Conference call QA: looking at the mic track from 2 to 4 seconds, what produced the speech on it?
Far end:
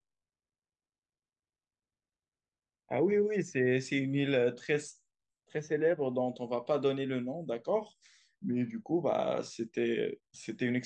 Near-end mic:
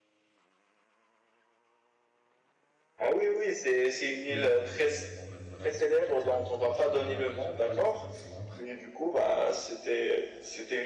echo only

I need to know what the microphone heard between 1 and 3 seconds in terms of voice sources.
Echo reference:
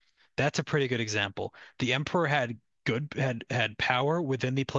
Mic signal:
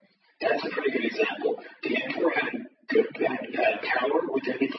echo only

